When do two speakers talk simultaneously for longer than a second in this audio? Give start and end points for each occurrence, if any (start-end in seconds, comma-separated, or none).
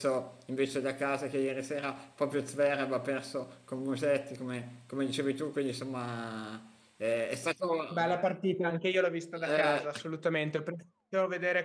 none